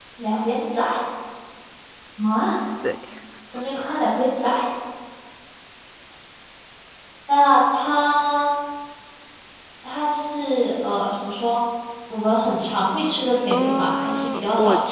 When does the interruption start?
13.5 s

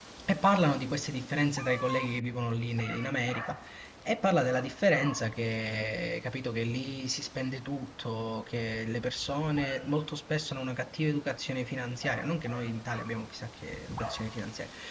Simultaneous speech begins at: none

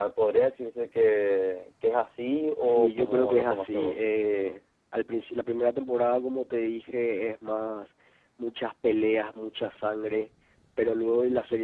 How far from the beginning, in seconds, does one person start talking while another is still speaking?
2.6 s

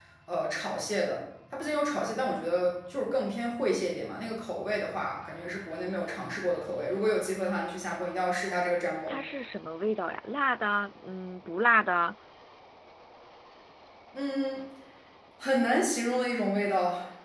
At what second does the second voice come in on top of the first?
none

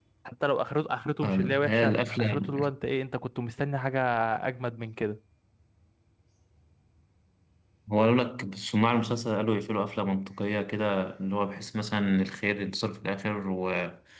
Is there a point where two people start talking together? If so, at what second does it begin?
1.2 s

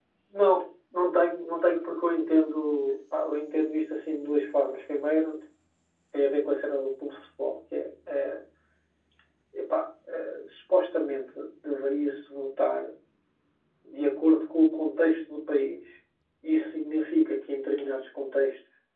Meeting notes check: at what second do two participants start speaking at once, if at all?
none

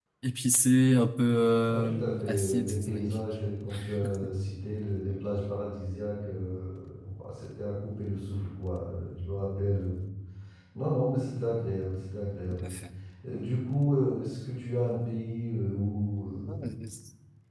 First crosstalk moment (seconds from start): 1.7 s

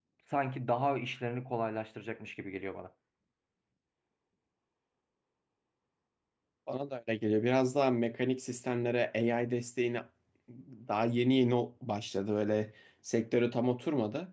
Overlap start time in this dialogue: none

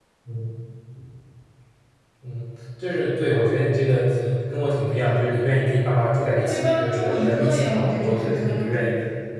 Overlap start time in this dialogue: 6.3 s

